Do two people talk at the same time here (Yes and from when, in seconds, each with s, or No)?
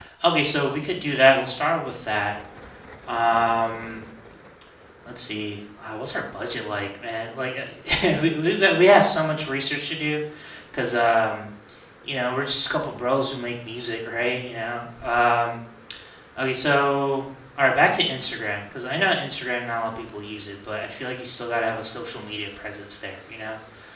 No